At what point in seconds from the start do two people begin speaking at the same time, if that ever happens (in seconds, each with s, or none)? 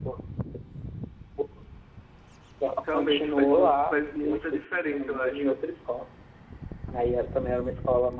2.9 s